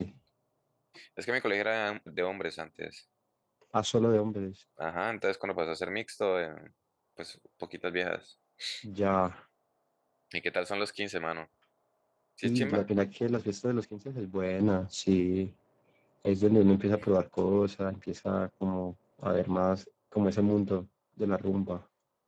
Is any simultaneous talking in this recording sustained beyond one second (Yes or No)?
No